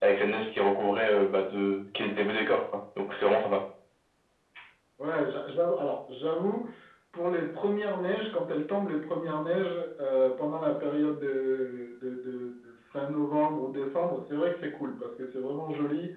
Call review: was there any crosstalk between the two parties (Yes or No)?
No